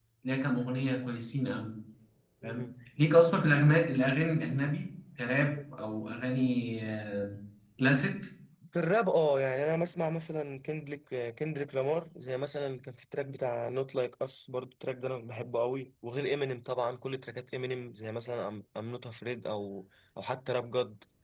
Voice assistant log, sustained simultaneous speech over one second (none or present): none